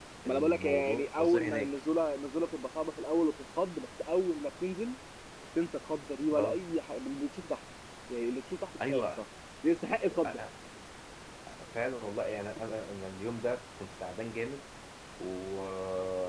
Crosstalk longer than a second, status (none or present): present